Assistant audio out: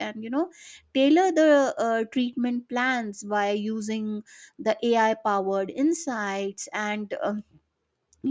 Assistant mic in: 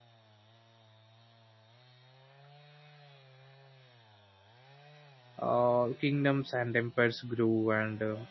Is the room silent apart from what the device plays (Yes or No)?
No